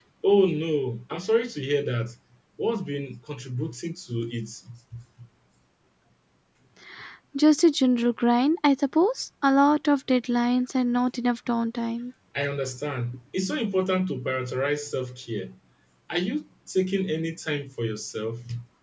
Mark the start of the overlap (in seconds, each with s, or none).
none